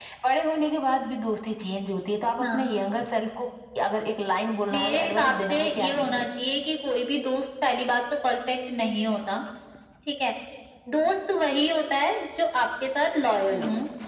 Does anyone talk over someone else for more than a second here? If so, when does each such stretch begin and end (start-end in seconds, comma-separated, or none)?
4.7-6.2